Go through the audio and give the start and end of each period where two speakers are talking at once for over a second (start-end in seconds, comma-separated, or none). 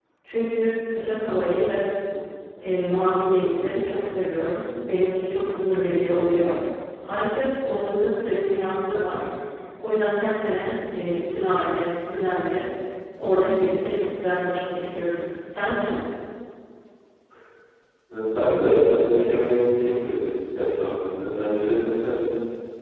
none